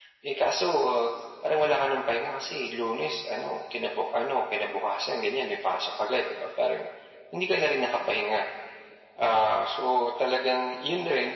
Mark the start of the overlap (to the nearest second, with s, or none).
none